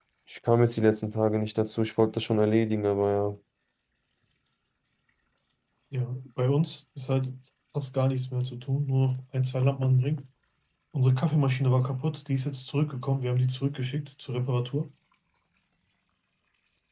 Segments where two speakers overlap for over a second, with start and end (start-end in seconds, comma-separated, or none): none